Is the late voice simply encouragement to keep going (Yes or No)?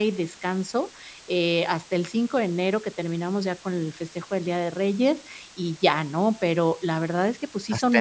Yes